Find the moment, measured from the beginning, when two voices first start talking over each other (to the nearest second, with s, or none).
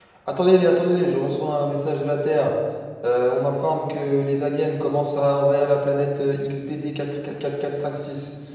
none